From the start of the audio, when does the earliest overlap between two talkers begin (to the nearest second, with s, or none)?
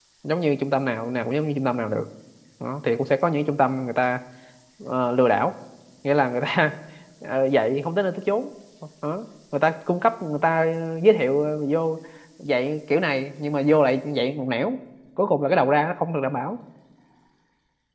none